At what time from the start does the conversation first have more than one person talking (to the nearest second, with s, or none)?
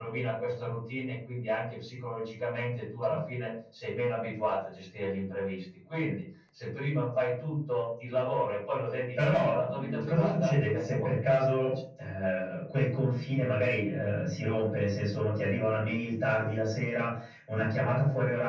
9 s